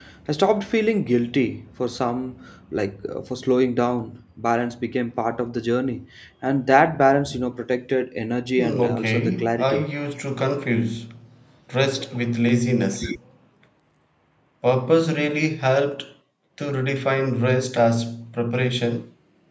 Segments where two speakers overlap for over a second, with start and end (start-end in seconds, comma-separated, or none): 8.6-9.8